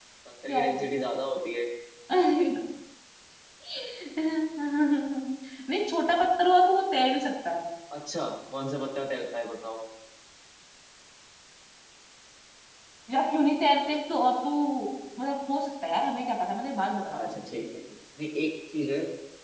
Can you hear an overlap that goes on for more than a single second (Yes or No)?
No